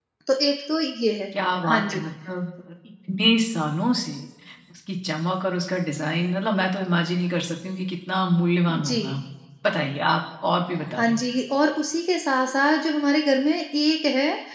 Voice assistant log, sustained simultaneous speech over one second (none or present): none